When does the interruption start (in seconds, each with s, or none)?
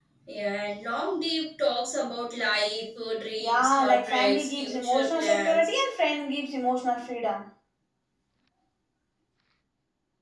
3.4 s